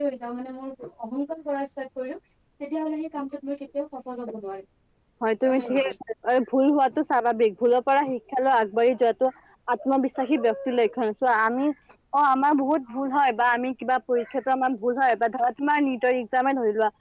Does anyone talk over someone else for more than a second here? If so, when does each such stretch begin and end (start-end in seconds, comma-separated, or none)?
none